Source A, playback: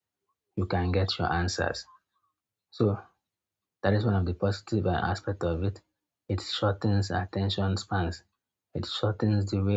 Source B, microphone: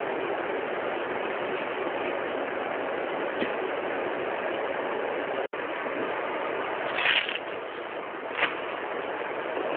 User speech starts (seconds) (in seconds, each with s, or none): none